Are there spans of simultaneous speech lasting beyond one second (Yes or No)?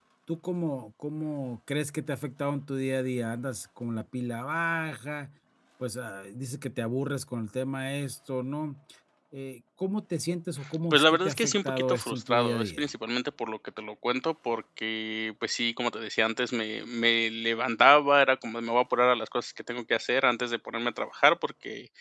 Yes